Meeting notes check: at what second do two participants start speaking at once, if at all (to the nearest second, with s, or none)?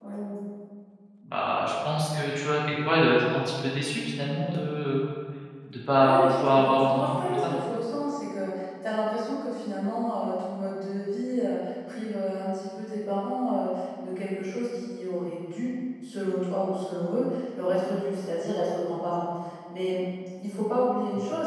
6 s